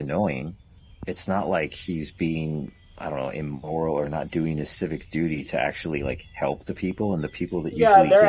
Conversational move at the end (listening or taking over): taking over